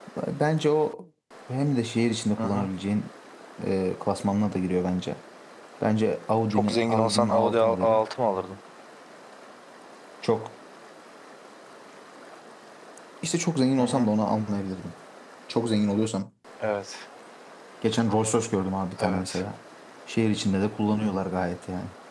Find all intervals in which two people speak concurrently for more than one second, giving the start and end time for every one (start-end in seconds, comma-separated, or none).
6.5-8.0